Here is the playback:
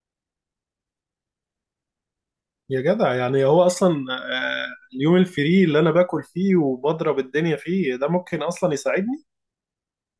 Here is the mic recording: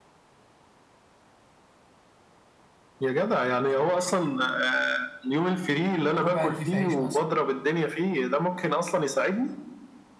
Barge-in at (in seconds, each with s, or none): 6.2 s